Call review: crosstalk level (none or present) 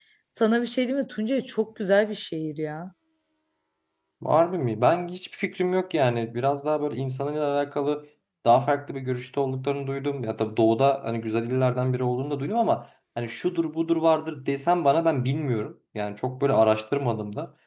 none